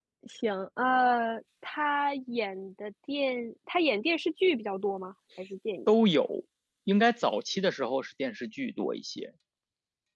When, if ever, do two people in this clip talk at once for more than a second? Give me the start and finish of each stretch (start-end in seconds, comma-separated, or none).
none